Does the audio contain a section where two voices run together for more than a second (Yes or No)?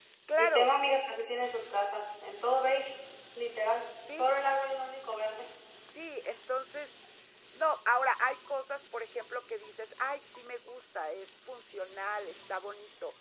No